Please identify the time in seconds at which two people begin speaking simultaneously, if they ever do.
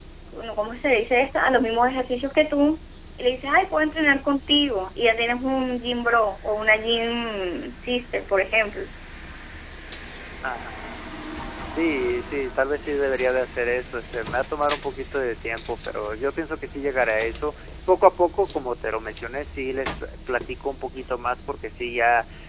none

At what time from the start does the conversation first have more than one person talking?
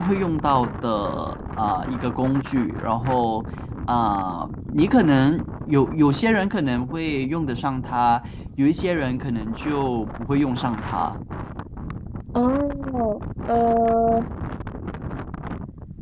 none

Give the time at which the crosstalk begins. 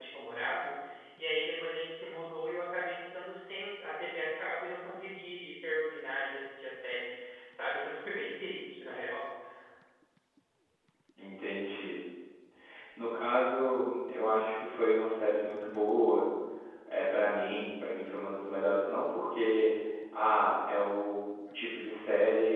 none

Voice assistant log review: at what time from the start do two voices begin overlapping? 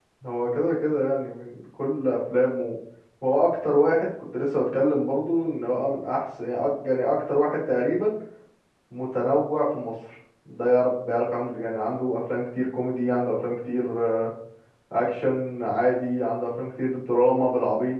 none

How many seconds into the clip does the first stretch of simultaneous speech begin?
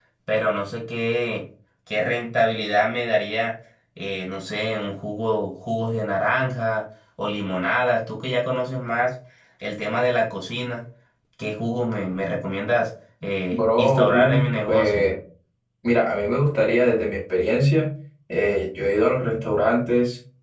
13.5 s

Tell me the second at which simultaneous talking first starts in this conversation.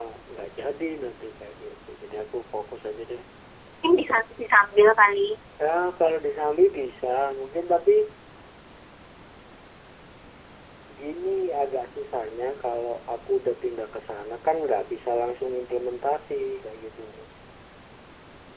none

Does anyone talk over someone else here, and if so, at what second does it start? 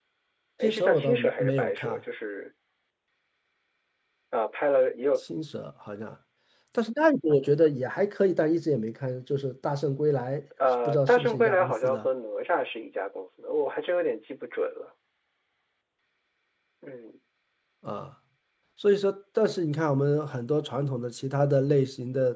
0.6 s

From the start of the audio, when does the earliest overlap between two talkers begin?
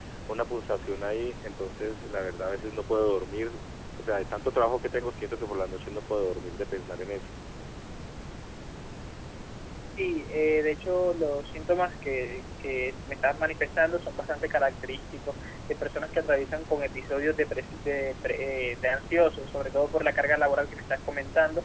none

